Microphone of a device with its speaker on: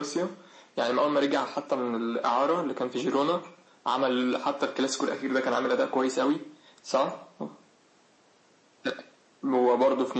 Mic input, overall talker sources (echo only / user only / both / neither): echo only